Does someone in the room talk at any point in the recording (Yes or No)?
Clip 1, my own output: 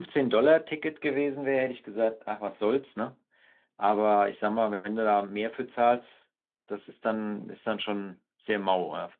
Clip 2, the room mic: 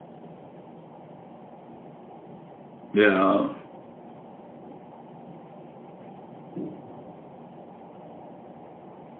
Yes